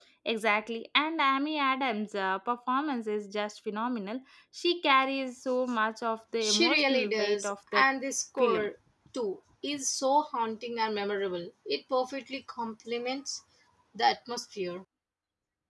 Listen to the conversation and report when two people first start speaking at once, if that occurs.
6 s

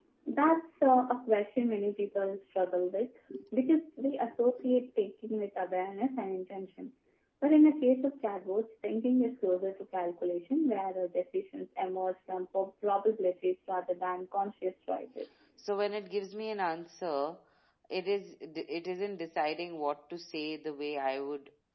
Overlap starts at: none

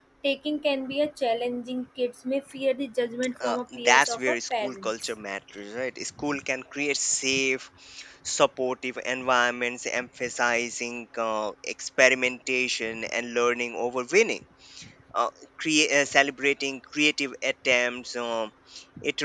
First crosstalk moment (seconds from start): 3 s

